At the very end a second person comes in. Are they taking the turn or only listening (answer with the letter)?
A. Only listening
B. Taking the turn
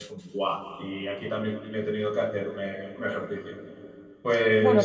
B